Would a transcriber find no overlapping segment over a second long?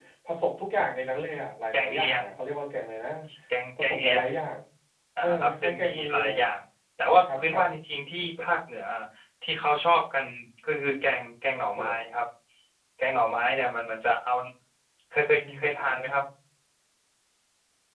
No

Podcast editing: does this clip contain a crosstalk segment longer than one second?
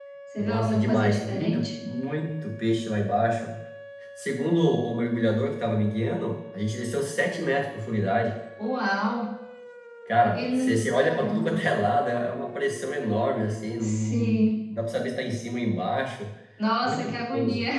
Yes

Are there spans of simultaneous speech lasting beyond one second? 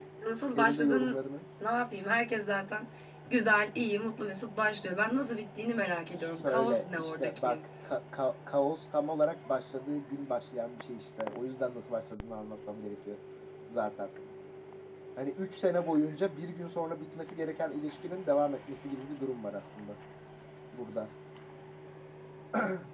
Yes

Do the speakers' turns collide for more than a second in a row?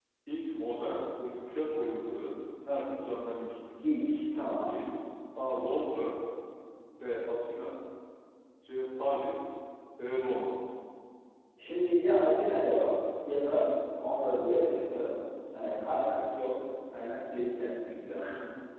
No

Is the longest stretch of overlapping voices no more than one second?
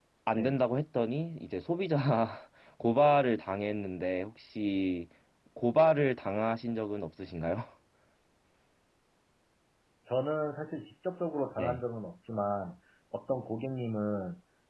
Yes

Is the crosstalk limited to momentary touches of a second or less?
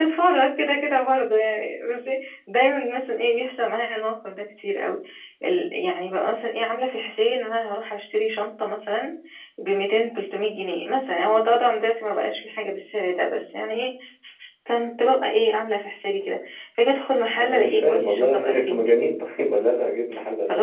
No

